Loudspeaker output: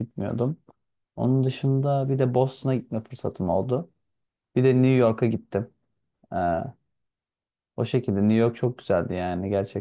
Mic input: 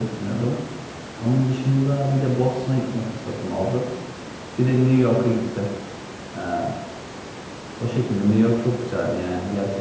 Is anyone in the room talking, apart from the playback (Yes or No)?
No